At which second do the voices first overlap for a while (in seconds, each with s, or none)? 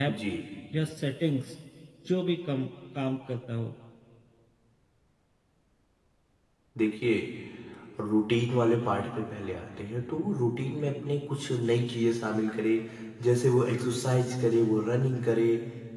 none